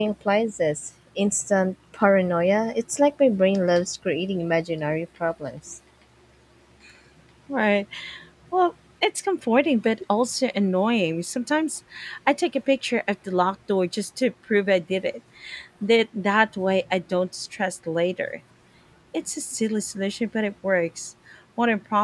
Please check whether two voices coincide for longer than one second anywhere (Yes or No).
No